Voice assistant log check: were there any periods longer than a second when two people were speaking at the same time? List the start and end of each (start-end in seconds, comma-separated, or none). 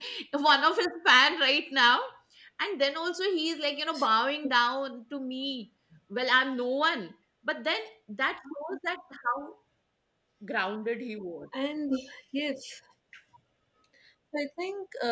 none